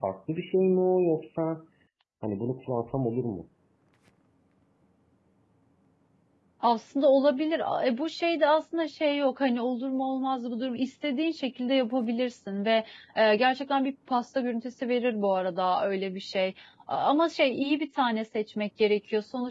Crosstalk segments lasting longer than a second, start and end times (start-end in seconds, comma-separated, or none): none